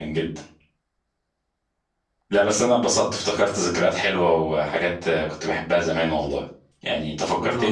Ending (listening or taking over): listening